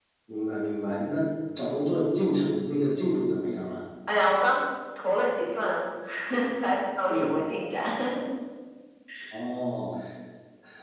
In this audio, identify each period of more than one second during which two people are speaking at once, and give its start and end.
none

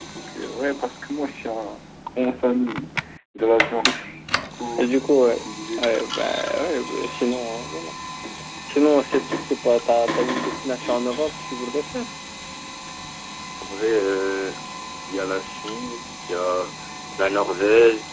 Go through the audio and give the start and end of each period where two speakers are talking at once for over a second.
none

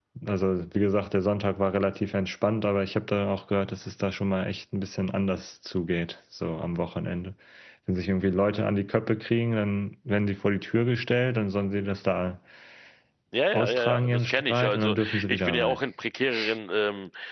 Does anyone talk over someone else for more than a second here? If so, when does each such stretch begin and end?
13.5-15.8

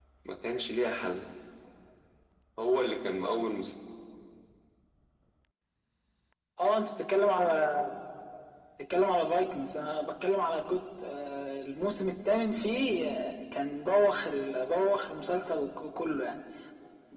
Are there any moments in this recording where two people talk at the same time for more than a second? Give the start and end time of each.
none

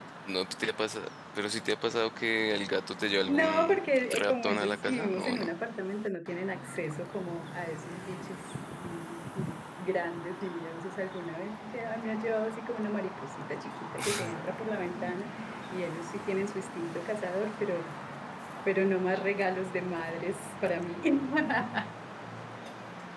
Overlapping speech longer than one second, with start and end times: 3.2-5.5

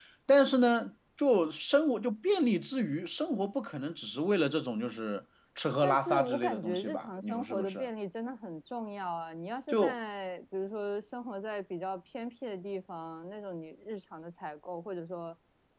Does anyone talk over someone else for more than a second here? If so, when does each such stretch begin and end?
5.8-7.9

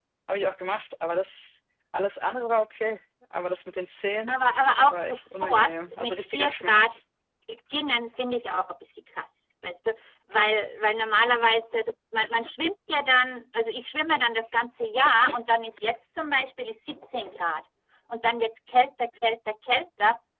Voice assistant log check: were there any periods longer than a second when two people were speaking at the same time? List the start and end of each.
4.9-7.0

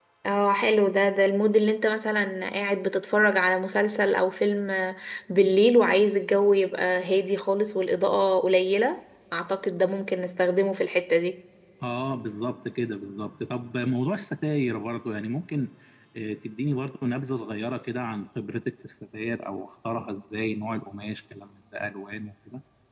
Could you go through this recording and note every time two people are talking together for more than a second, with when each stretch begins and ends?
none

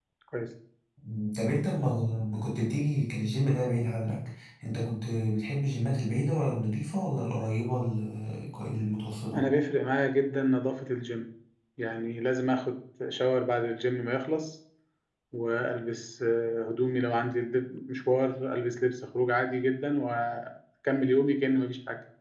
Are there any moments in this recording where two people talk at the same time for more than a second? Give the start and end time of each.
none

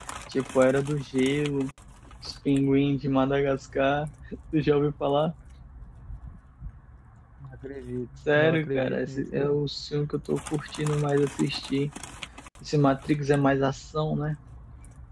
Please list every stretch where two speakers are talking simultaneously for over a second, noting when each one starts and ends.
8.3-9.6

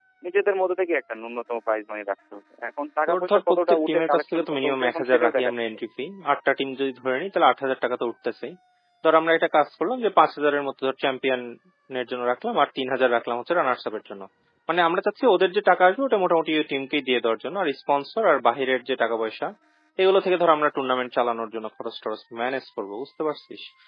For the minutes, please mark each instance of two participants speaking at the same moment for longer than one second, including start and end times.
3.1-5.5

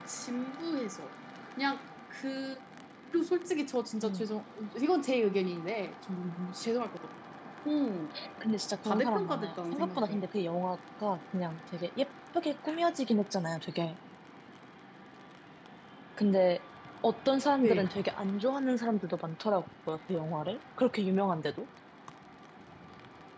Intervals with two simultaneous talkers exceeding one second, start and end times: 8.8-10.2

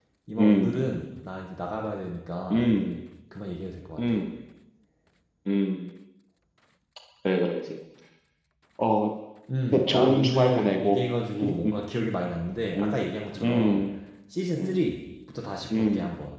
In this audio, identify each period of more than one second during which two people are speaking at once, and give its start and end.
9.7-11.0

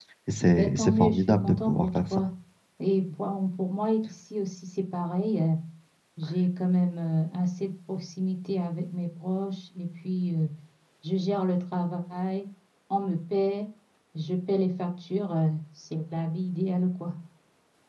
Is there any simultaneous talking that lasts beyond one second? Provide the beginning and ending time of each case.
0.5-2.2

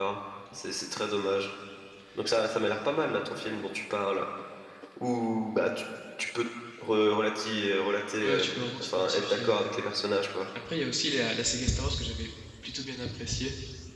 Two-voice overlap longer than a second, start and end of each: 8.2-9.6

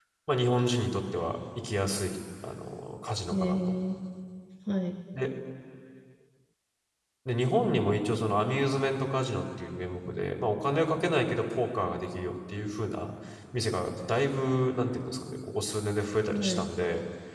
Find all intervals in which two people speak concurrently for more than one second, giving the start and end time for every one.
none

